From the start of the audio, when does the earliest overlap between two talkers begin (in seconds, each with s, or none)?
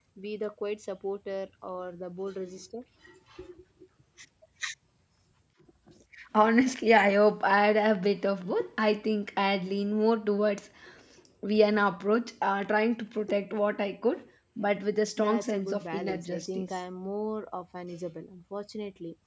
15.2 s